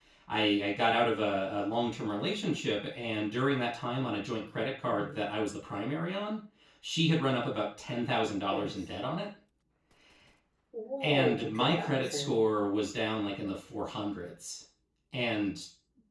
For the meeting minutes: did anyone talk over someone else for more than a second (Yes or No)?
Yes